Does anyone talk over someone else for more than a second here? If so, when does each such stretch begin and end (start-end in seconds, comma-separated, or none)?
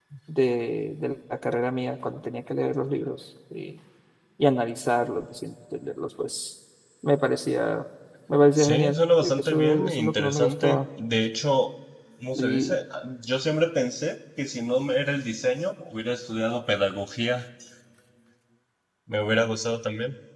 8.6-10.8